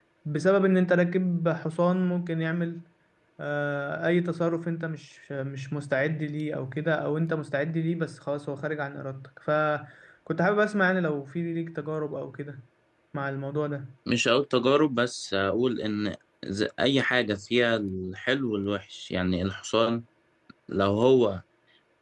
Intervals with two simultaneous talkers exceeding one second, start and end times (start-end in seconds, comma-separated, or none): none